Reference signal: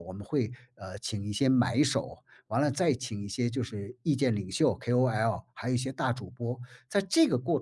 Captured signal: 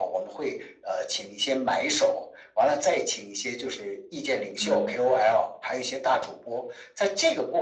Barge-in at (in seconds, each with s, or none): 4.6 s